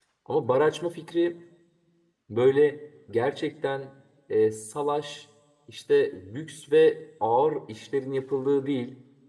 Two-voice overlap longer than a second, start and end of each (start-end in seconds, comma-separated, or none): none